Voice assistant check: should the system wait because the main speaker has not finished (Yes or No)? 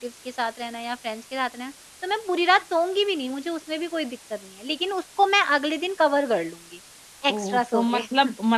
No